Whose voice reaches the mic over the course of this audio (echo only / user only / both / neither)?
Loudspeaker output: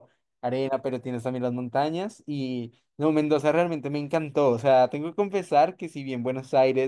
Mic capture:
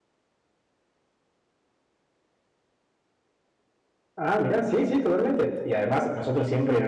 user only